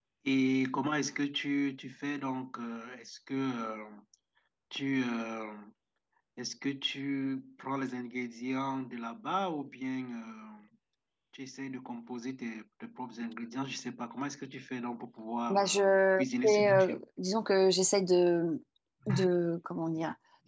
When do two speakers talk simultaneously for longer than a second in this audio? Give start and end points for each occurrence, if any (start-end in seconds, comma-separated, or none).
15.5-17.0